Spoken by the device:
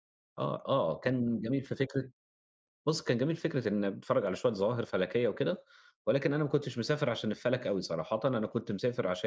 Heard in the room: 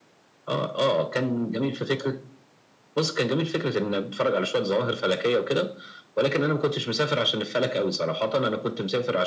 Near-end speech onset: none

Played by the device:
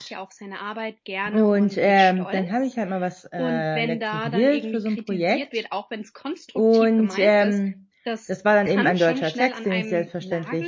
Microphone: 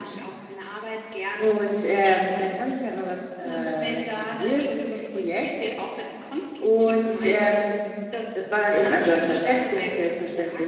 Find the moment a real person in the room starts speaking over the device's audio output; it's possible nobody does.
none

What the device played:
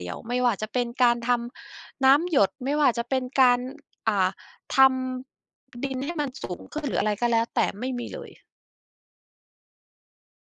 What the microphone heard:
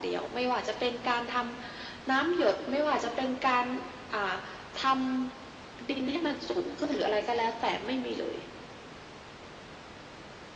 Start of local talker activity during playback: none

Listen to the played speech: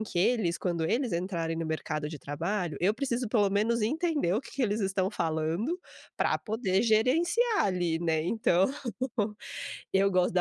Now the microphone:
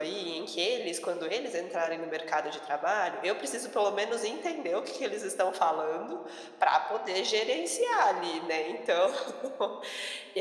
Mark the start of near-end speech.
none

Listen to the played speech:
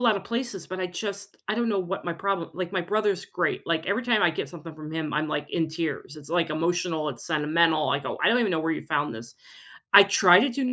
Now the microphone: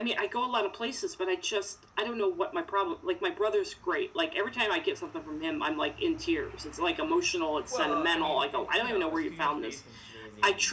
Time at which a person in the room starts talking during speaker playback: 8 s

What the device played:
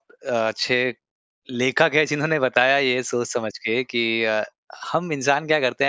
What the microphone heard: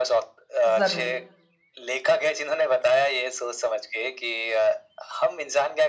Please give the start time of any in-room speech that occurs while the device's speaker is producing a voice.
1 s

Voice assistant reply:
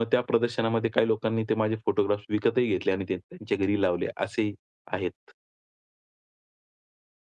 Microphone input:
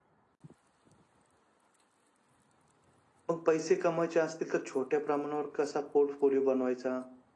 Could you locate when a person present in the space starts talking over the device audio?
3 s

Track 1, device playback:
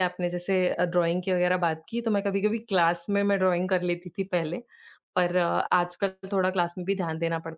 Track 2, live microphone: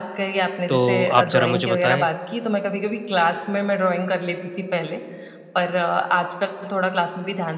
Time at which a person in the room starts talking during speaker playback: 1 s

